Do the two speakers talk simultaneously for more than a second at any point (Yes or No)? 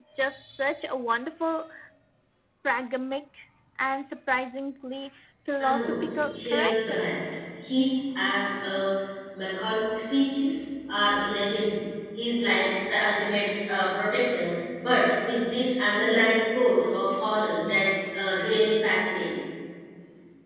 Yes